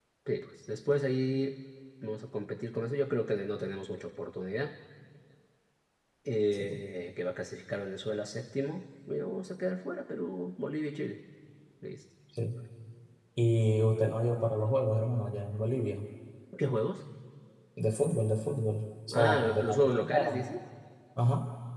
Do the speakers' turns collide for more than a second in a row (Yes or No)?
Yes